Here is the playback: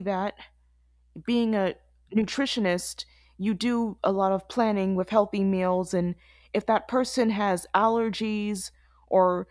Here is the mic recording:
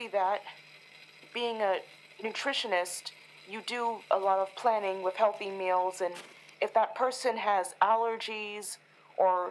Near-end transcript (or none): none